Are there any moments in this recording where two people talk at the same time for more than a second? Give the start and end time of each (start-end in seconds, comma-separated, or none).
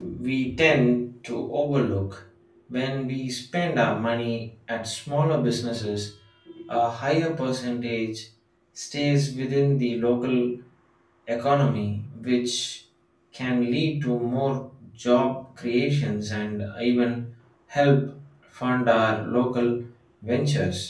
none